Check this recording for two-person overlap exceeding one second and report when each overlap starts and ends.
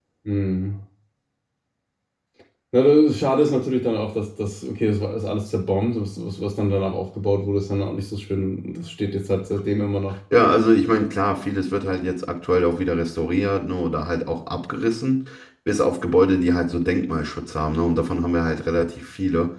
none

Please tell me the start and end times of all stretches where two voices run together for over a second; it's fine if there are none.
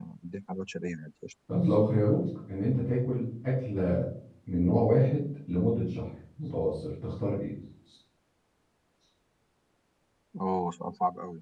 none

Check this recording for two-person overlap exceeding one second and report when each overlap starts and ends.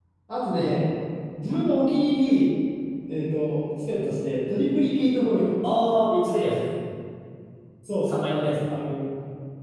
none

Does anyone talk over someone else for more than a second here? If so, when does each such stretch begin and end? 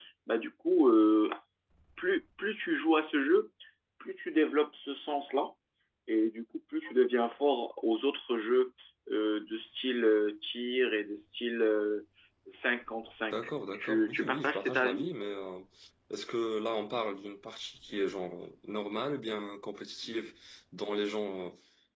13.3-15.1

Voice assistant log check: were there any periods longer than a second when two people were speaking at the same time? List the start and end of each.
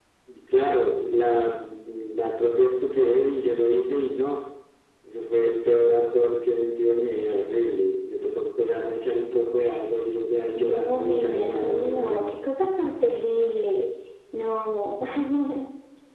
10.6-12.2

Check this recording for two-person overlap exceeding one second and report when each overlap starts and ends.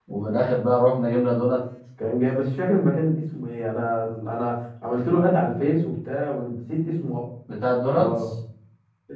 none

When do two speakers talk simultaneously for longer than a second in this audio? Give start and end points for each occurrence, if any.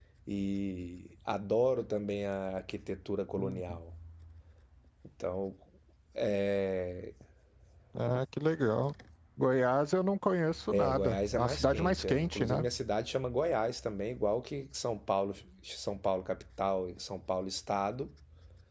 10.7-12.6

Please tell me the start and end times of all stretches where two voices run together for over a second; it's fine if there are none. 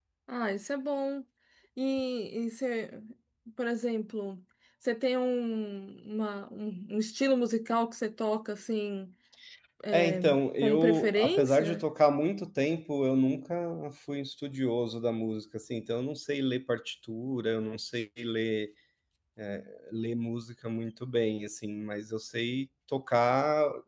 10.6-11.8

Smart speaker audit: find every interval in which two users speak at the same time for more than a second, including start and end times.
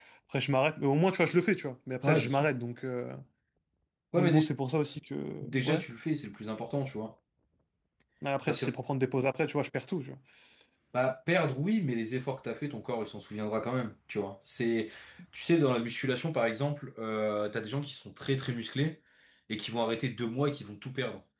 none

